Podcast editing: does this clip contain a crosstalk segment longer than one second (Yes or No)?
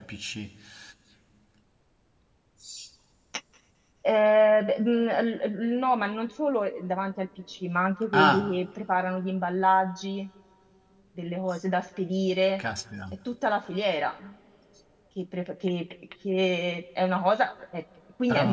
No